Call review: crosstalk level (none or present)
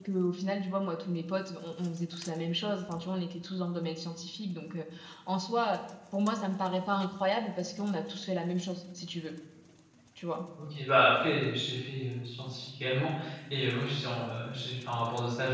none